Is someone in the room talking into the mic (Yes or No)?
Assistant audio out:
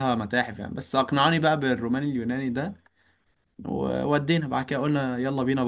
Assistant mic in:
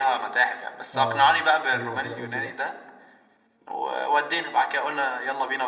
Yes